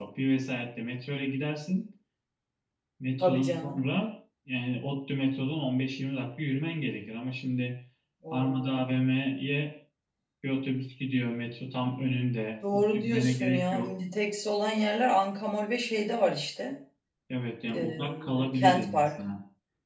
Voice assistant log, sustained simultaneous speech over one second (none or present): present